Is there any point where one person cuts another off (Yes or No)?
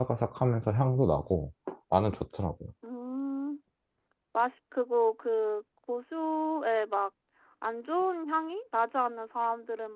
No